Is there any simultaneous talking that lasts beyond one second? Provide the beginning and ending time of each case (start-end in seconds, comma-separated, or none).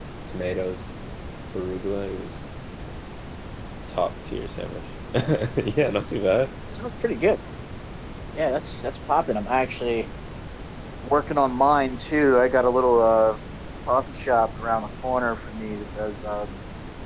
none